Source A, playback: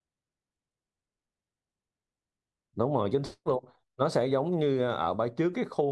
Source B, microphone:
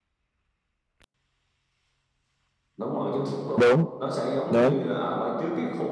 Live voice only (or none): đúng đúng